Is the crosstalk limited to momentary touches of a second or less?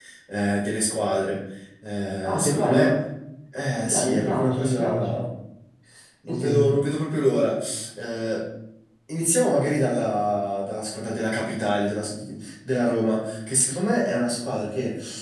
No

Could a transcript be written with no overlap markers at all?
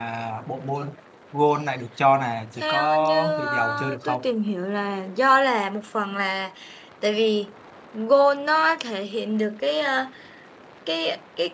No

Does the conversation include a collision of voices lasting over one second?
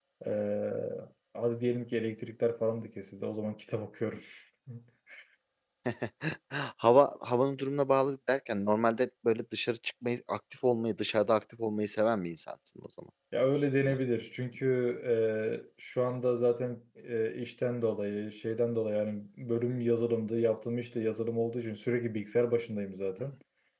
No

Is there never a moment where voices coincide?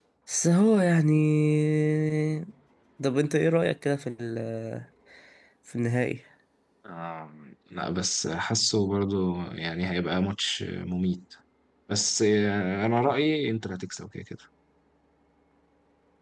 Yes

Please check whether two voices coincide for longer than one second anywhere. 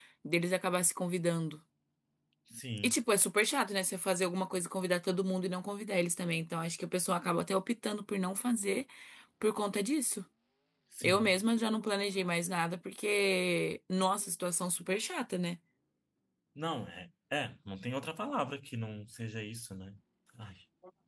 No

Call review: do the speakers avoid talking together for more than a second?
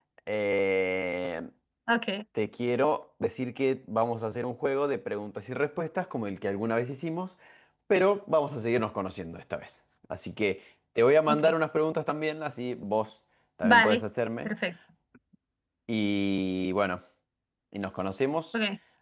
Yes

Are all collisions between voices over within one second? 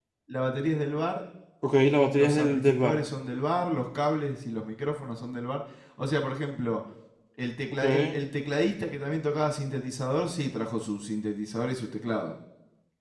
No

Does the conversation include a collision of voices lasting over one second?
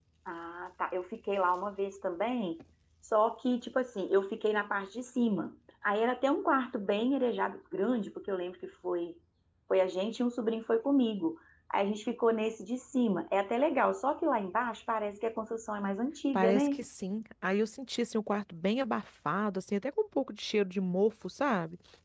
No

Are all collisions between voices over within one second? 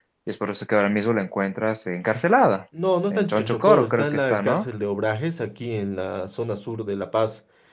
No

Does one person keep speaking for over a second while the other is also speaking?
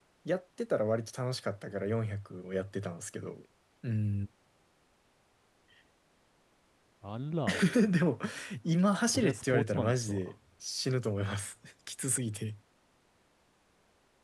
Yes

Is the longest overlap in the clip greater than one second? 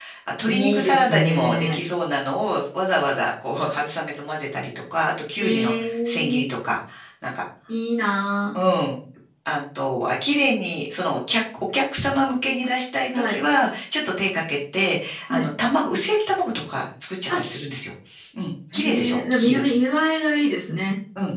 Yes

